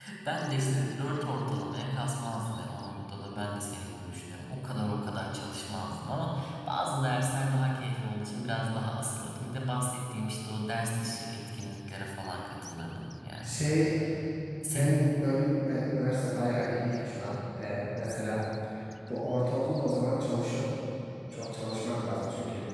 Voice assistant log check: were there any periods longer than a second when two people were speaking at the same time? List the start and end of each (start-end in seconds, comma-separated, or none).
none